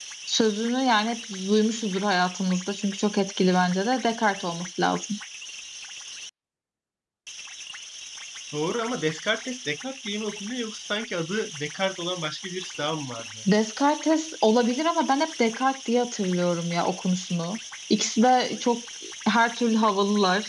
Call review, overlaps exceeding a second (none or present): none